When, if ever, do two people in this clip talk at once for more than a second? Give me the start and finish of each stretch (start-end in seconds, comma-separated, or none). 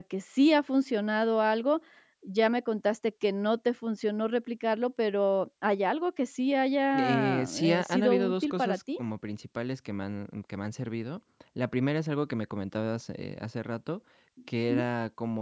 6.9-8.8